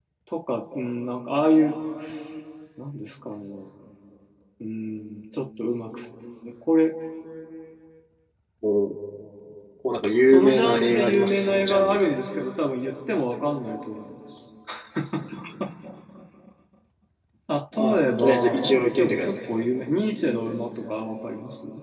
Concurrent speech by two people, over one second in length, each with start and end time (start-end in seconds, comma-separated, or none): 10.3-12.1, 17.8-19.4